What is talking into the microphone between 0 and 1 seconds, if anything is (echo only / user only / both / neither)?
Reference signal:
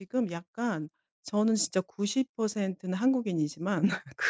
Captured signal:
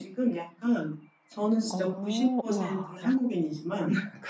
echo only